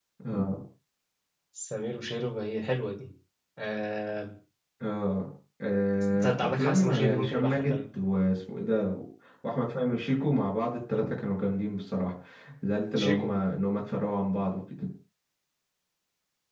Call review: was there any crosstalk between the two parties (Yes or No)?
Yes